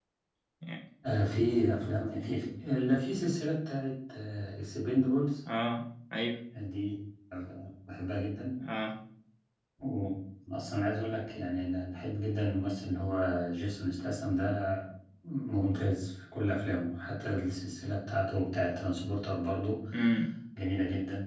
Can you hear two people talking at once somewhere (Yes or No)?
No